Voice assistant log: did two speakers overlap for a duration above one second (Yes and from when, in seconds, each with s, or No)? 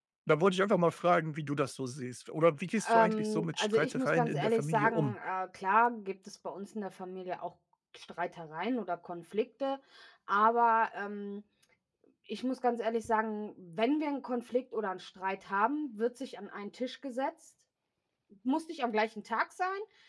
Yes, from 2.8 s